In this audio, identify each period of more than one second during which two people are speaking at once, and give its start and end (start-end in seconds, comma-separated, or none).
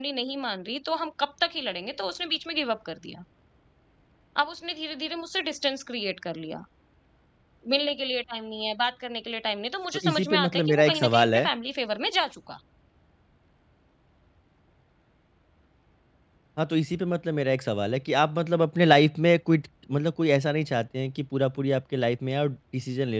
9.9-11.5